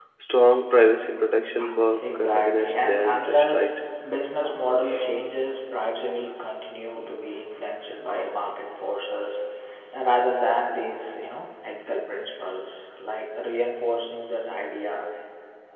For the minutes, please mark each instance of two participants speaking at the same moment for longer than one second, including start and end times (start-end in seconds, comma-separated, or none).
2.1-3.6